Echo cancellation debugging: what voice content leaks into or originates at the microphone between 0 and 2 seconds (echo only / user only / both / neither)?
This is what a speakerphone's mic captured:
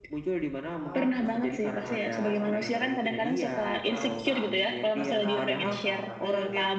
both